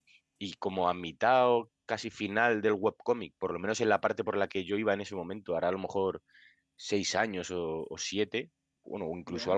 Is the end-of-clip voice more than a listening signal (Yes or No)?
No